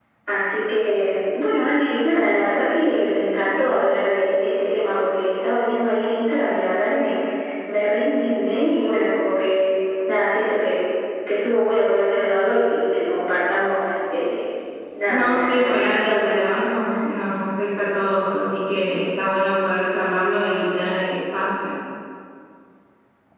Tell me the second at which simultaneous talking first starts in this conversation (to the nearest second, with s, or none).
15 s